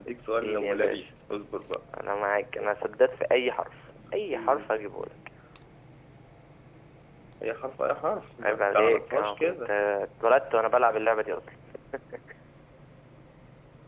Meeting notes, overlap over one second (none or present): present